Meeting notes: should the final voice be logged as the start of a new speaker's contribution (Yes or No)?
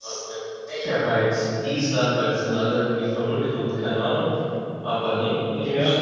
Yes